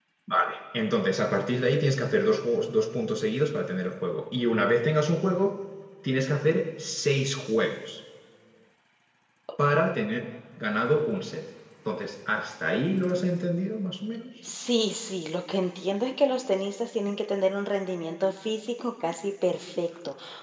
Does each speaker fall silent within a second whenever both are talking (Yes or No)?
Yes